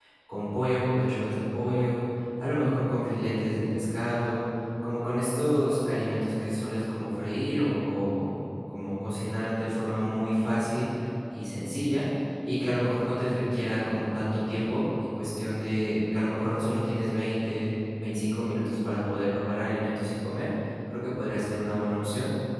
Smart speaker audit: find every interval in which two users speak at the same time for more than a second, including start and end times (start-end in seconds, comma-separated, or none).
none